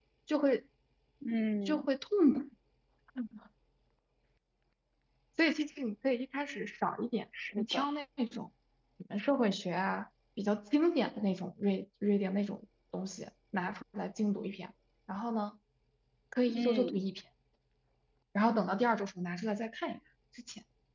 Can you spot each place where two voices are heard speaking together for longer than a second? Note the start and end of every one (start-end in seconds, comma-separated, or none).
none